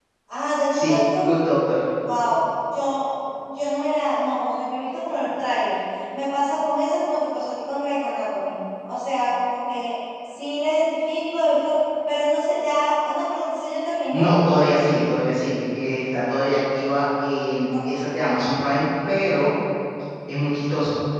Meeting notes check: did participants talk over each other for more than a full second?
No

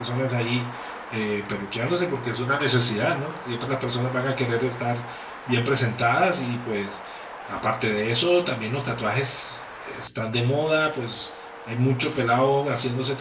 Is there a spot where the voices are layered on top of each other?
No

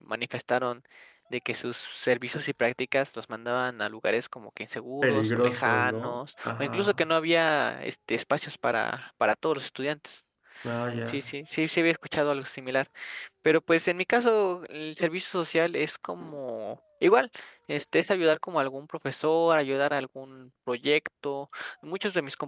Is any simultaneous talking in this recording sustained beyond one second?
Yes, from 5.0 s

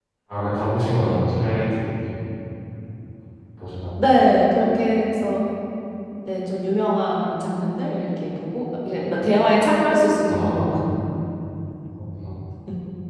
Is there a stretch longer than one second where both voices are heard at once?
No

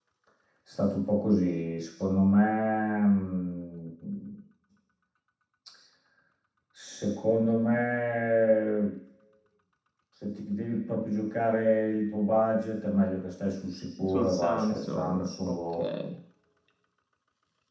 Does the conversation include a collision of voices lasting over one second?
Yes, from 14.0 s

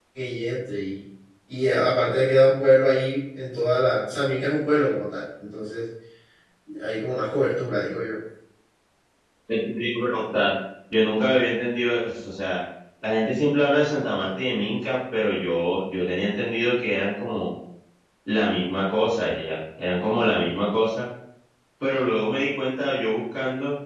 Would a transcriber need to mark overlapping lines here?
No

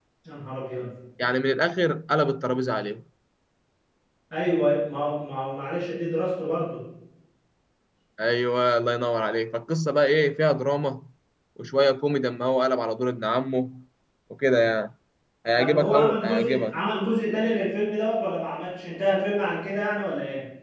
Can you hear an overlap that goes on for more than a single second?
Yes, from 15.5 s

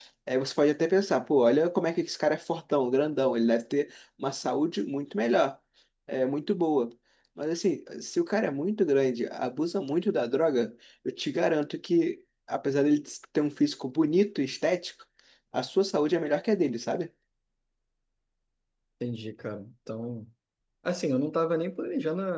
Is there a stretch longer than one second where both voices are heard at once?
No

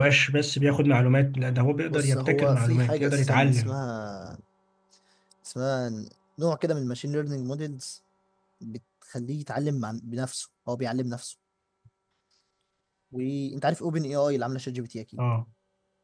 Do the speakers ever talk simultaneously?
Yes, from 1.9 s

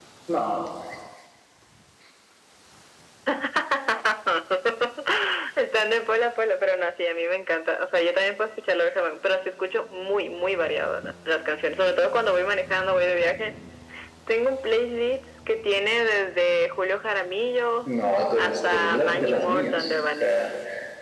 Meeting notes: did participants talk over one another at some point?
Yes, from 18.4 s

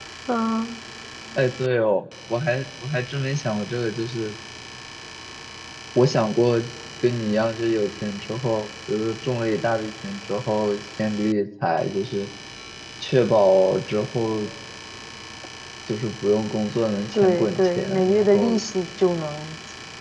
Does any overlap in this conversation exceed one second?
Yes, from 17.1 s

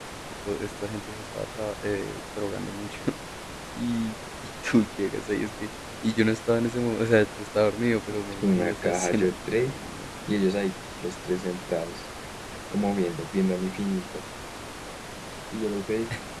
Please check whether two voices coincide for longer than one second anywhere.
Yes, from 8.1 s

